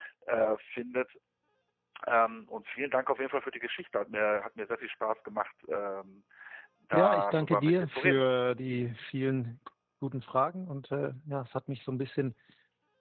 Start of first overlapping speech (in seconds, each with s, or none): 6.9 s